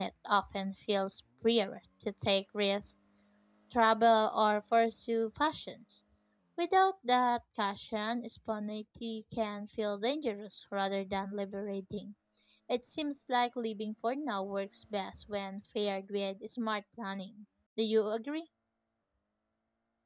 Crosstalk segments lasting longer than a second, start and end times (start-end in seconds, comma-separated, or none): none